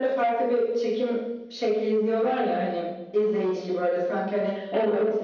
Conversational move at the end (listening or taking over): listening